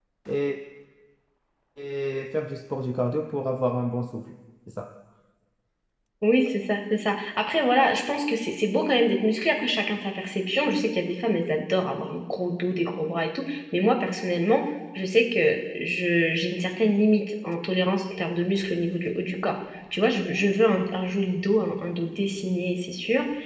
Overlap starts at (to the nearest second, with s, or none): none